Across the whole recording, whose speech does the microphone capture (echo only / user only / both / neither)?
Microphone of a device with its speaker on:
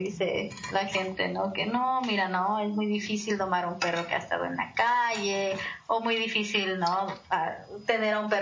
echo only